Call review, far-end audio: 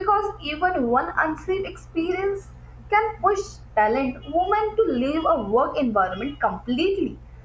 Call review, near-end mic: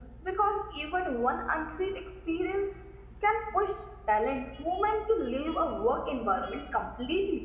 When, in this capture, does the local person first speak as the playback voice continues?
none

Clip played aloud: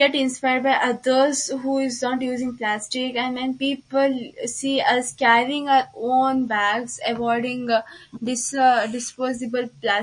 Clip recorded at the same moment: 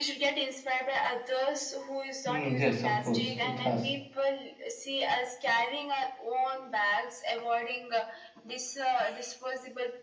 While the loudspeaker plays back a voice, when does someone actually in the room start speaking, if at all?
2.2 s

